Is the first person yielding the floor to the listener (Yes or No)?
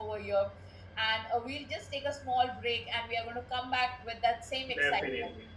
Yes